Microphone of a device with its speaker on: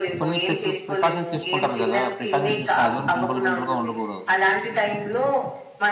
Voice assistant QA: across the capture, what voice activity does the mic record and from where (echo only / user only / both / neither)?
both